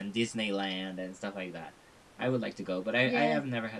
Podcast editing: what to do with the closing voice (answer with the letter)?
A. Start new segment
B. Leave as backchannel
B